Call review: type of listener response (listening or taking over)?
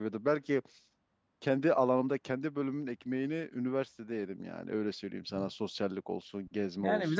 taking over